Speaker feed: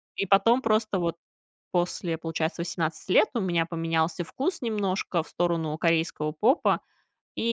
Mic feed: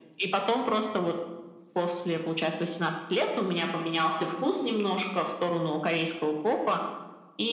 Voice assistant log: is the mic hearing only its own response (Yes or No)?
Yes